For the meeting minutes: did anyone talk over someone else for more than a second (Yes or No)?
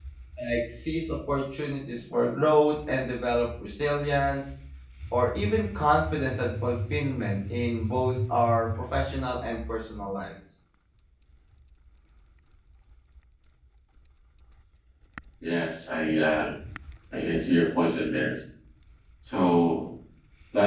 No